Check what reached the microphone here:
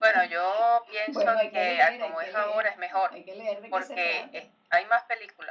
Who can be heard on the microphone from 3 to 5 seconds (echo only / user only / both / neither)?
both